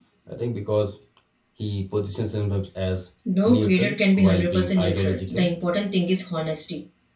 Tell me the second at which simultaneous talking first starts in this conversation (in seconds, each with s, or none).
3.5 s